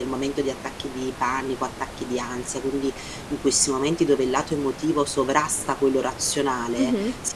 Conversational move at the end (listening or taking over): listening